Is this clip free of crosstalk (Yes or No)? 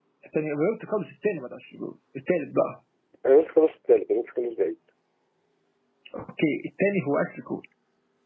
Yes